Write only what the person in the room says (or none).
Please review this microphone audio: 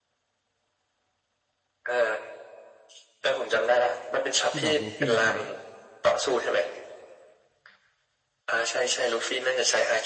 ที่แบบลูฟี่ใช้